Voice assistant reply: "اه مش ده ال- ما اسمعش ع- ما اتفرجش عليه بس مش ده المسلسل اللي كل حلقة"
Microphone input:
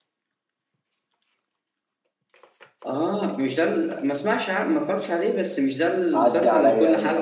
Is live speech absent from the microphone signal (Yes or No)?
No